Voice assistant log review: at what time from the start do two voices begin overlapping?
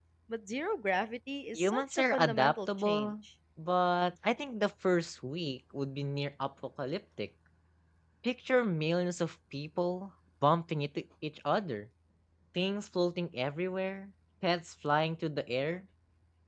1.5 s

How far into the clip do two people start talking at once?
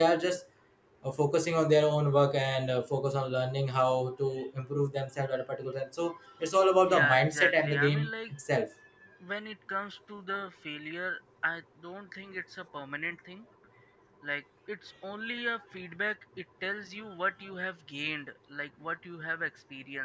6.9 s

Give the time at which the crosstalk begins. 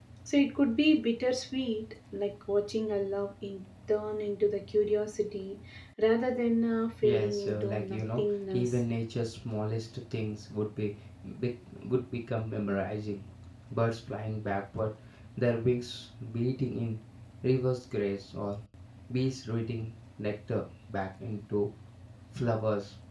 7.0 s

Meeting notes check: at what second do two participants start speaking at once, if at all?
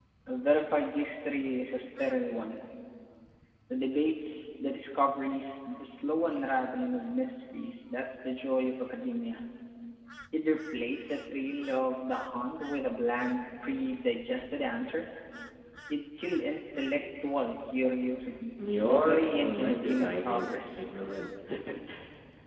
18.8 s

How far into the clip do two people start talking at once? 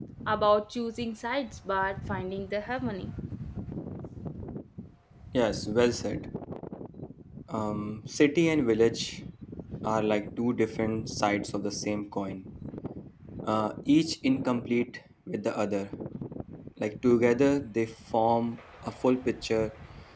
none

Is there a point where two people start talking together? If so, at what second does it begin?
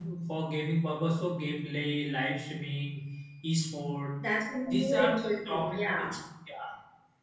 4.7 s

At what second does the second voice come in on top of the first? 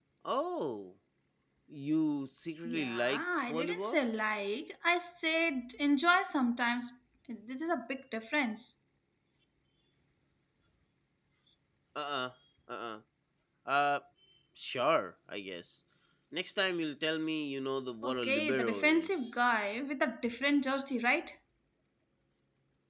2.6 s

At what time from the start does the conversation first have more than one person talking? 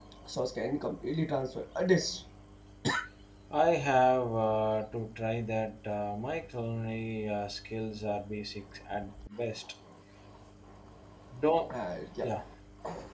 none

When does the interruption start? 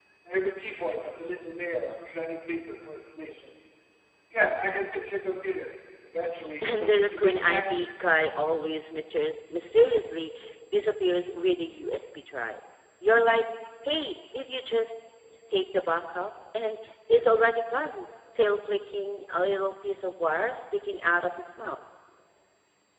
6.6 s

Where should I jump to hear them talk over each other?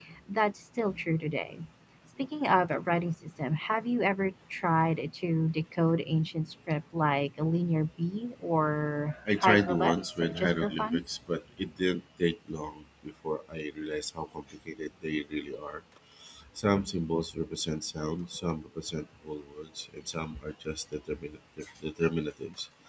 9.3 s

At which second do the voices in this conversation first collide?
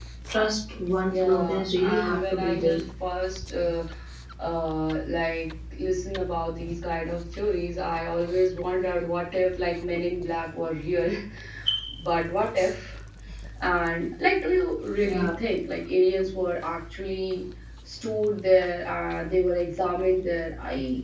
1.1 s

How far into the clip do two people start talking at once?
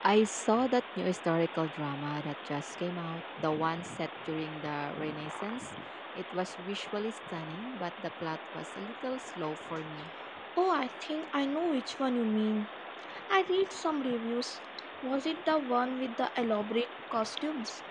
none

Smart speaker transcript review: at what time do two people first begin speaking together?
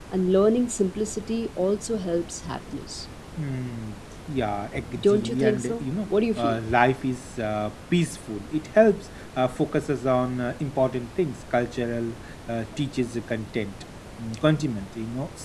4.8 s

